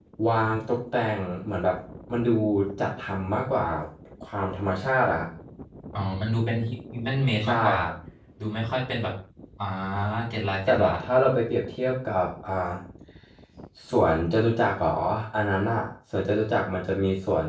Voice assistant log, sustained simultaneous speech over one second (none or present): none